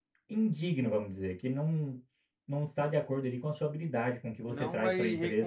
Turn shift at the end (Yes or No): Yes